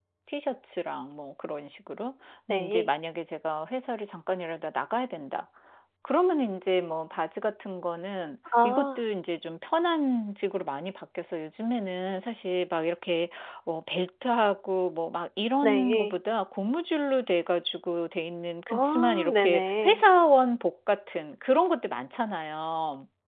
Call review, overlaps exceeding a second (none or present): present